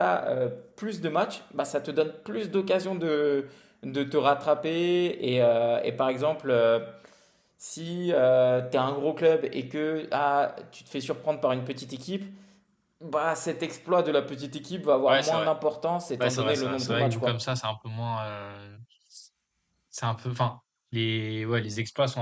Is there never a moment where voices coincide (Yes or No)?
No